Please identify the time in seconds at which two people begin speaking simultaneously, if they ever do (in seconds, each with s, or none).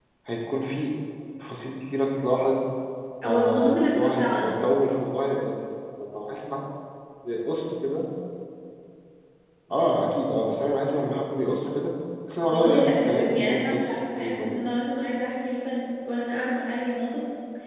3.2 s